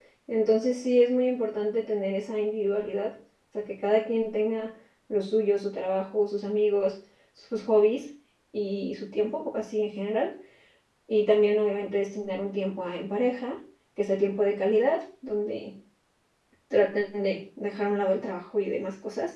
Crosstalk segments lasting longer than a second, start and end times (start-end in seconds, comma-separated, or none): none